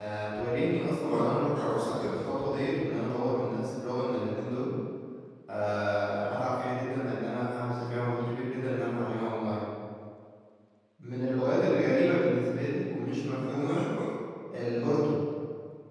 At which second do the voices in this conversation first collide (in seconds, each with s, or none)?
1.1 s